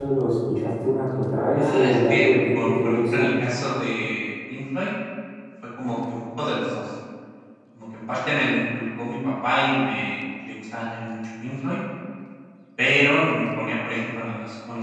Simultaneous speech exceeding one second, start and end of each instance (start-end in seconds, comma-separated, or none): 1.6-3.3